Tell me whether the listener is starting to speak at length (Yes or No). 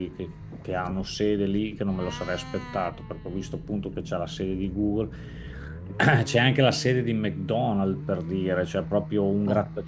No